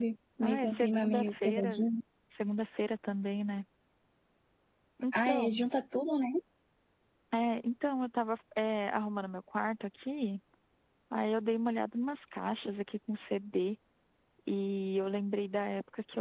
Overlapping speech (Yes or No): Yes